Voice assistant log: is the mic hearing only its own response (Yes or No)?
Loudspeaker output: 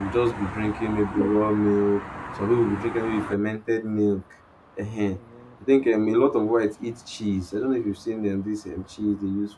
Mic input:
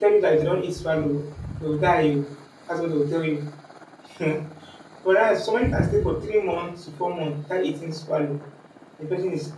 No